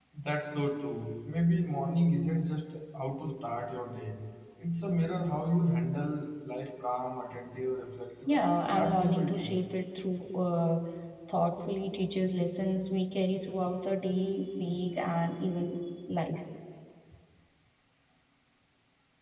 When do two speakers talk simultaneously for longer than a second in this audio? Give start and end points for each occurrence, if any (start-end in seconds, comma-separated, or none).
8.3-9.5